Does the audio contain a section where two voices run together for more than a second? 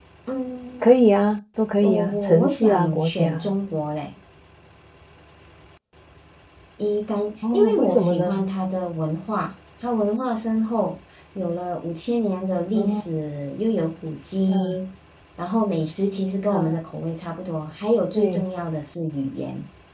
Yes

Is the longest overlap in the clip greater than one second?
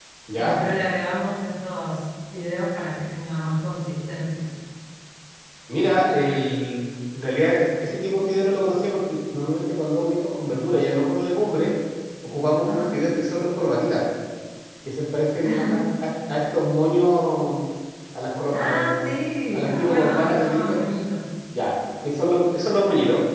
Yes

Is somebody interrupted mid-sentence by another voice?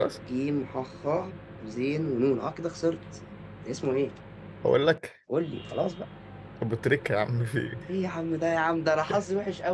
No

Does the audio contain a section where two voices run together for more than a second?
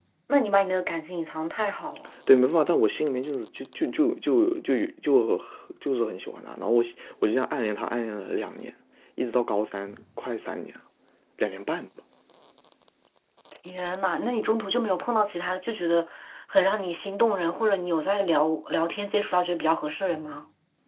No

